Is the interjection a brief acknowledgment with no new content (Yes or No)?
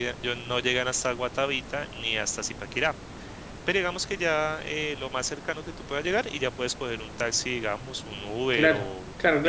No